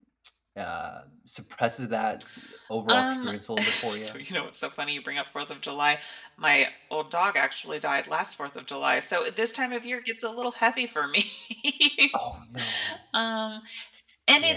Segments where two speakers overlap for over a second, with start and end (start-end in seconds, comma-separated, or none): 2.9-4.2